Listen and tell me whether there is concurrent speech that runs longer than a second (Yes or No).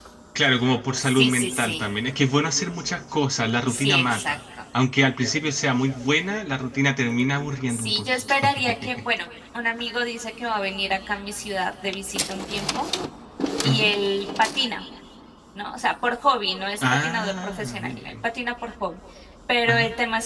Yes